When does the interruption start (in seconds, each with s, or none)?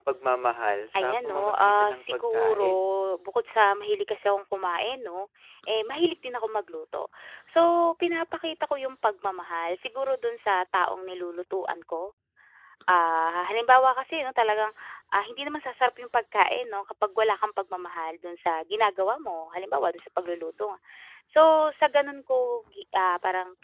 0.9 s